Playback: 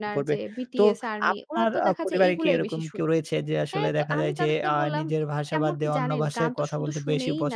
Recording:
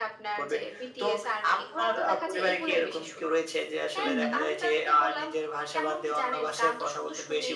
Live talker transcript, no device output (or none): হুম, হুম।